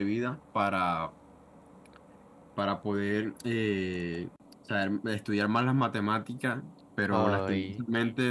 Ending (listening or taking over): listening